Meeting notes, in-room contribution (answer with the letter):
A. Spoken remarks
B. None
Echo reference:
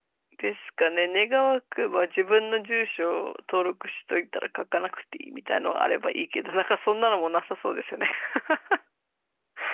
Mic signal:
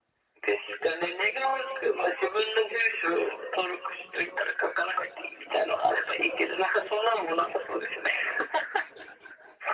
B